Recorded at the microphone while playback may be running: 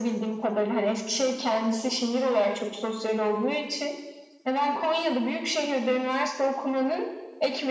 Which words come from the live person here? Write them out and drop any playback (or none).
none